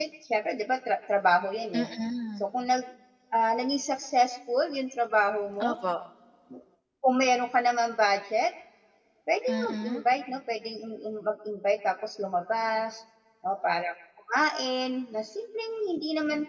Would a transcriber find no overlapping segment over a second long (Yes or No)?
Yes